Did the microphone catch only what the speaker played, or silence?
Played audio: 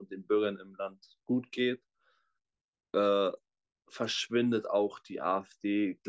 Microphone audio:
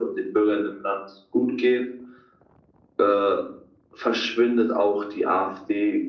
Yes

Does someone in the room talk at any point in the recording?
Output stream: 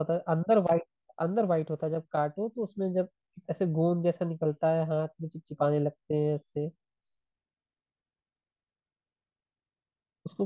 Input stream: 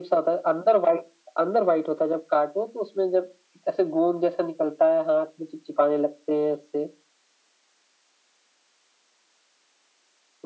No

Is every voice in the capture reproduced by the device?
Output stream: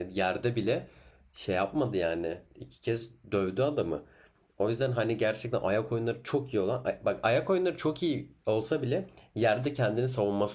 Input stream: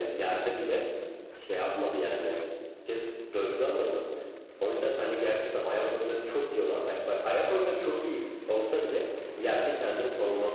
Yes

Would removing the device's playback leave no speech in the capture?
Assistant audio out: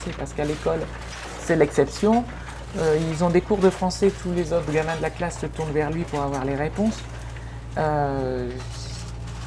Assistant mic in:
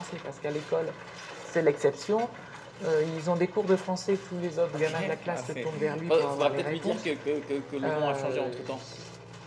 No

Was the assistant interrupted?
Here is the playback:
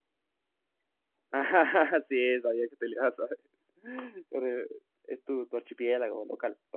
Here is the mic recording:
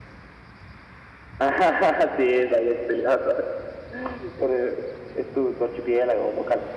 No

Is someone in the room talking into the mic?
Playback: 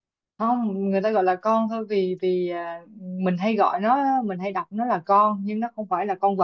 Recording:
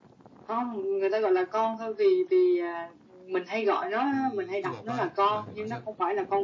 Yes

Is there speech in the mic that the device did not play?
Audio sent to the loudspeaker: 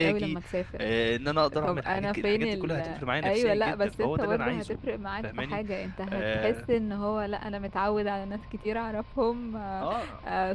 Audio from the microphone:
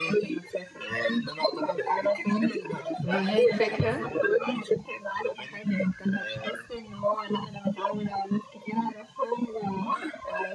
Yes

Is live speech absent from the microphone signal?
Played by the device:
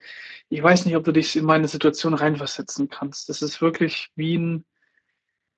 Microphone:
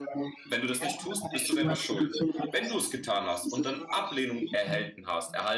No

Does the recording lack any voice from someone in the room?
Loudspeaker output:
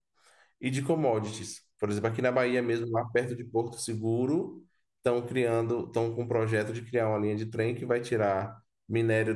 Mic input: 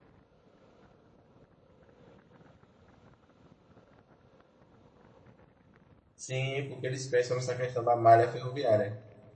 No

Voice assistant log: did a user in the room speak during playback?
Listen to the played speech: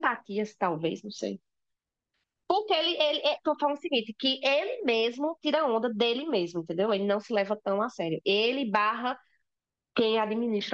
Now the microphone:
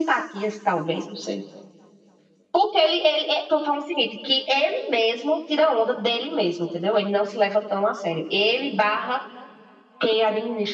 No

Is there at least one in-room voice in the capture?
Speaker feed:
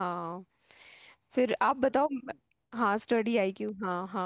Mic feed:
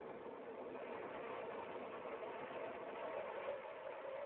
No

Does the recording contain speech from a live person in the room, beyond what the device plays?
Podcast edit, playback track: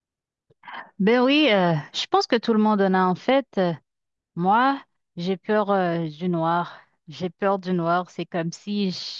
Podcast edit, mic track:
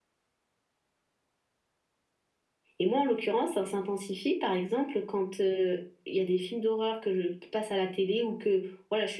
Yes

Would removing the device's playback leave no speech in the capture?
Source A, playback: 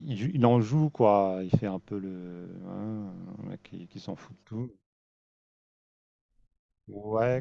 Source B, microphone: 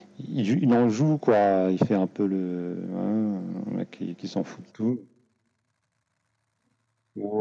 Yes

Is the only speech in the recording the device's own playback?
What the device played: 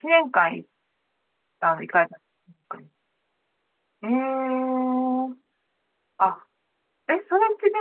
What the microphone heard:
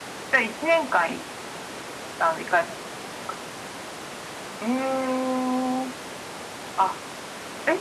Yes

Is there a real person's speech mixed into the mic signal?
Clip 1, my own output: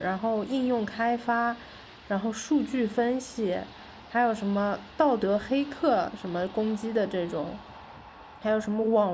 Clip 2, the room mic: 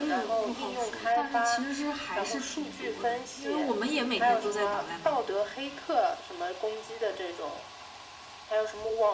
Yes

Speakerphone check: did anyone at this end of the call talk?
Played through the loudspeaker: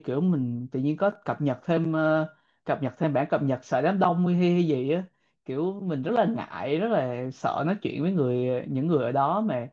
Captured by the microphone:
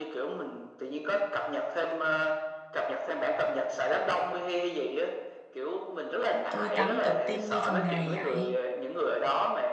Yes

